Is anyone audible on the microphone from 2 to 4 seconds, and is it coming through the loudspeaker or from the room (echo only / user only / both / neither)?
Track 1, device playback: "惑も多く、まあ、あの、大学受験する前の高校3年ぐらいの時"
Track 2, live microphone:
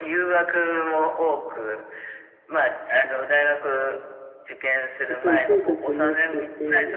echo only